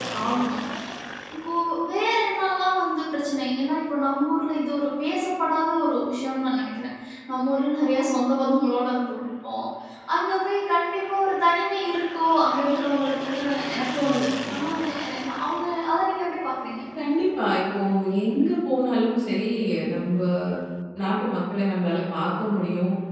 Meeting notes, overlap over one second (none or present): none